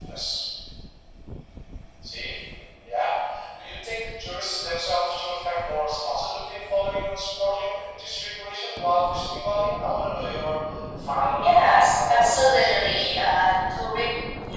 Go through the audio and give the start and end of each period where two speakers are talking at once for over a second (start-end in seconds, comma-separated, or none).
11.4-13.1